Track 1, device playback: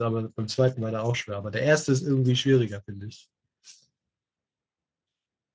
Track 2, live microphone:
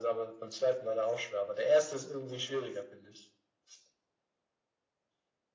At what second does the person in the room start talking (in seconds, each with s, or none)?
none